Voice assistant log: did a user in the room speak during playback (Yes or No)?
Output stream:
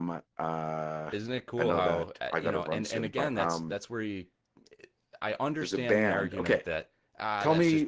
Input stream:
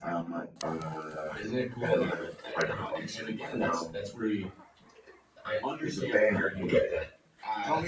No